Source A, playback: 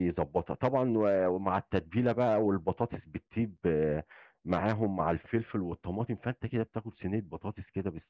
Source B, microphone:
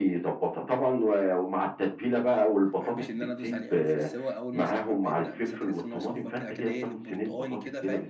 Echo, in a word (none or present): present